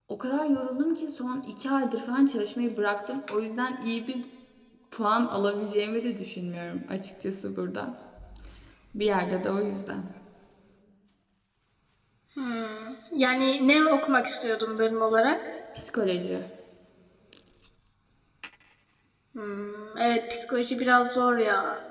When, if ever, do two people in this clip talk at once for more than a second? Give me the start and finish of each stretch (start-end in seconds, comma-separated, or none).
none